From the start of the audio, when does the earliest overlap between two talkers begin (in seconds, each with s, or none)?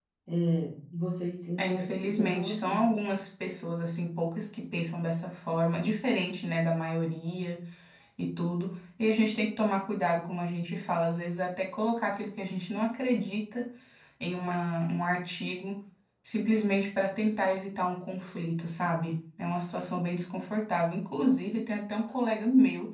1.6 s